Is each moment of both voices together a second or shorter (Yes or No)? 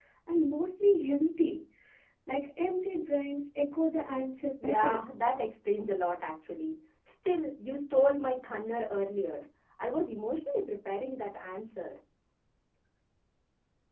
Yes